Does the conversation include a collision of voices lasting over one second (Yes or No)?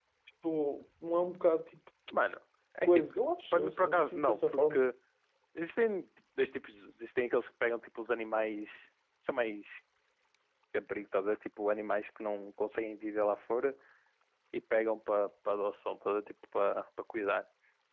Yes